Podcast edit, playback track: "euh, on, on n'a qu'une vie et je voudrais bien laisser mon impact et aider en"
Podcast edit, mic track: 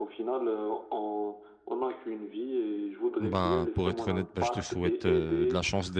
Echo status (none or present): present